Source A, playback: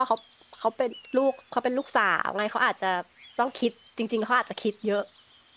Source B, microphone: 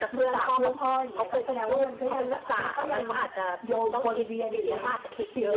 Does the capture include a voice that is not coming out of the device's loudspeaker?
Yes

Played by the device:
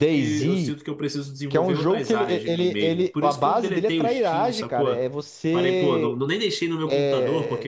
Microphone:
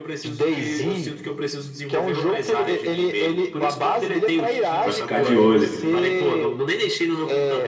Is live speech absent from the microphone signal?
No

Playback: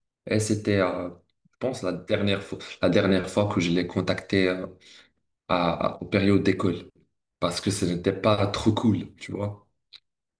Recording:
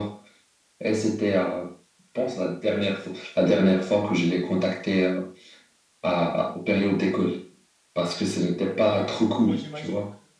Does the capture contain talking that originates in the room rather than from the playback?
Yes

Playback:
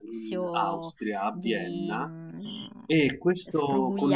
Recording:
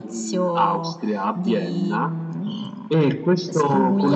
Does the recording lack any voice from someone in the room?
Yes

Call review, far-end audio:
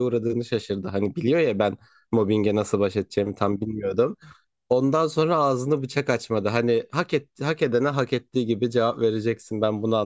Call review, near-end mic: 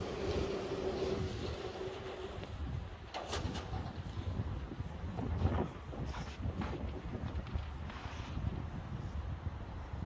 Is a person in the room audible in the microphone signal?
No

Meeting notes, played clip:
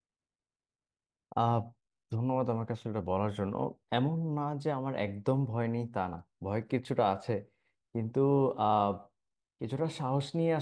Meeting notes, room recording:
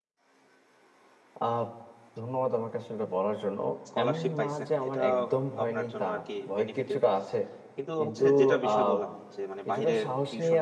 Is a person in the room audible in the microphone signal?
Yes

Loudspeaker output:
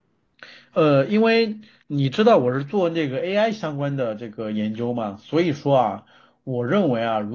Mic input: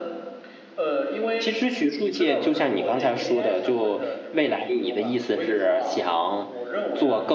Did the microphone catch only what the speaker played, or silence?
No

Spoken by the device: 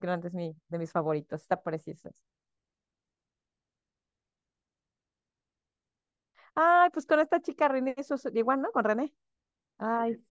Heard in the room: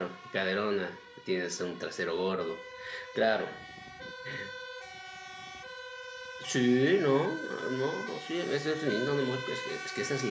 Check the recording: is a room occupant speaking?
Yes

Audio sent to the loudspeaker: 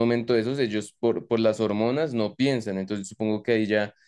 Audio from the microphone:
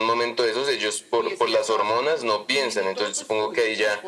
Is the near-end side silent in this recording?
No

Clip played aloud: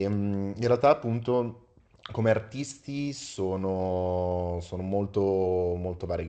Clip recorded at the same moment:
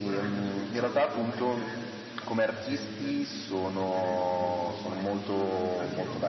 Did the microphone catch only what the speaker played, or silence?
No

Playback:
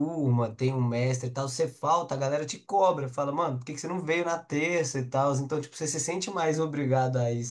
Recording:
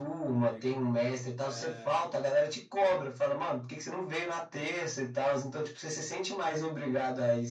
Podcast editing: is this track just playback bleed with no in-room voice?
No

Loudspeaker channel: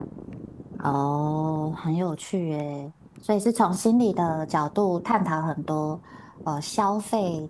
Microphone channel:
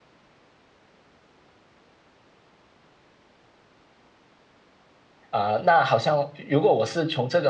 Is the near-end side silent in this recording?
No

